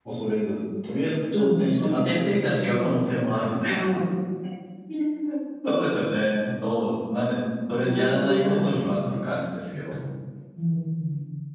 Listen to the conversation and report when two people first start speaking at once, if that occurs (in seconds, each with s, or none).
1.3 s